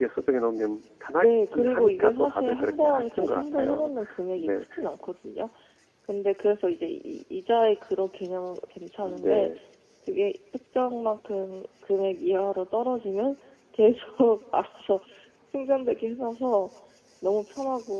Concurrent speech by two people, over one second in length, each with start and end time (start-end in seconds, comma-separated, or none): 1.1-3.9